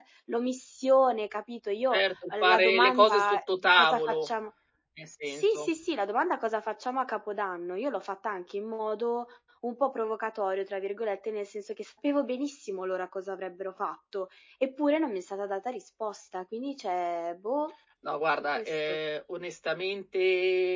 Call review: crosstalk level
present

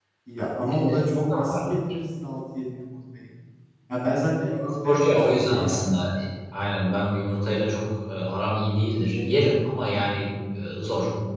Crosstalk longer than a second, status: present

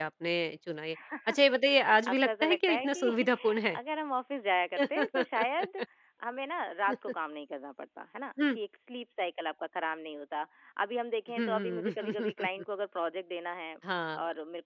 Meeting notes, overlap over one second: present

